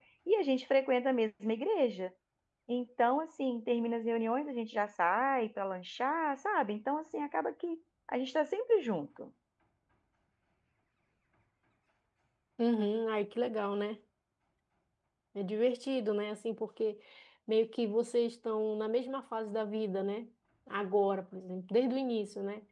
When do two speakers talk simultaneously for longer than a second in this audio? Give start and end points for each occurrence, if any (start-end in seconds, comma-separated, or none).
none